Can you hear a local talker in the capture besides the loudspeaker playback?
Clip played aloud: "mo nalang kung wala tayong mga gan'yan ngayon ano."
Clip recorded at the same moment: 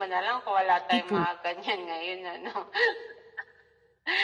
Yes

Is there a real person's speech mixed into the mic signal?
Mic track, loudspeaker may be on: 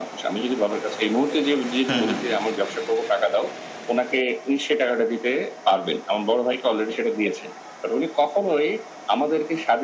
Yes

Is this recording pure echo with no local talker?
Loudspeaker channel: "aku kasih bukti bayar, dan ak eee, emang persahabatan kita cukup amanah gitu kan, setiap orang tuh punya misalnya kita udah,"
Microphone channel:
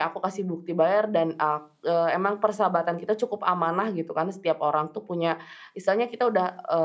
Yes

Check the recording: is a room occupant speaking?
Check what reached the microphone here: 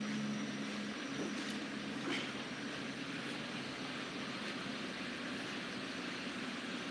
No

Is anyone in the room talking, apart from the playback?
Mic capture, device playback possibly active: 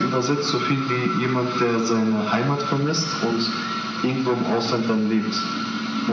No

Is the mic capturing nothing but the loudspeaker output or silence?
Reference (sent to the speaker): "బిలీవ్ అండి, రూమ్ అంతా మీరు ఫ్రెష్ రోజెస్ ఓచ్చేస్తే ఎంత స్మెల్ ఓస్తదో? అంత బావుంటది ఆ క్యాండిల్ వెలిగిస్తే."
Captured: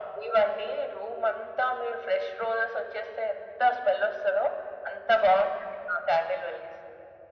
Yes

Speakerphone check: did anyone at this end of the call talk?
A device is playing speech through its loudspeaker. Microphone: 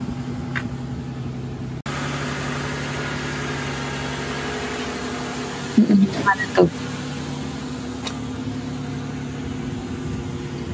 Yes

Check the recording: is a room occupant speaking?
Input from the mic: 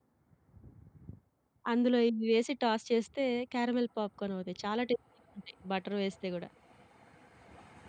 Yes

